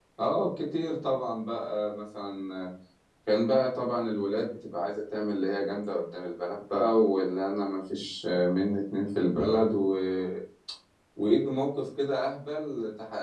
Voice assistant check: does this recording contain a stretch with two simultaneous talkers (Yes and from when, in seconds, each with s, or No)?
No